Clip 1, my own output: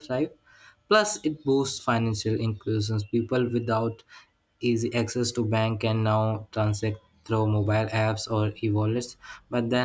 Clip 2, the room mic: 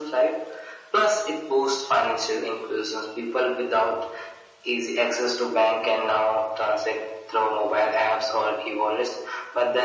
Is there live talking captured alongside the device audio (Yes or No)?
No